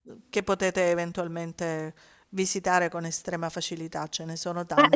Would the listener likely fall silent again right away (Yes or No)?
No